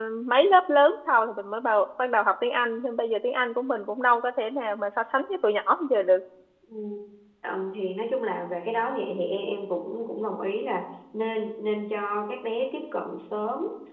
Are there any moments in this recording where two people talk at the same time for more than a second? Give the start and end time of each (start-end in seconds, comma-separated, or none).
none